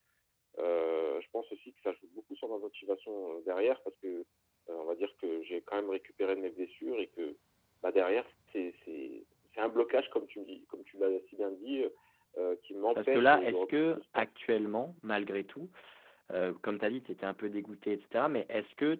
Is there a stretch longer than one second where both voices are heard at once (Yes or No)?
Yes